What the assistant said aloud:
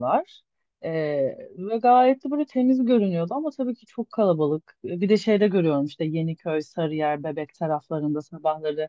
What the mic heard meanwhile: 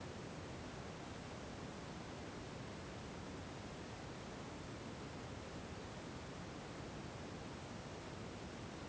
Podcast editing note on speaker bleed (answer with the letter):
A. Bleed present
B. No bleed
B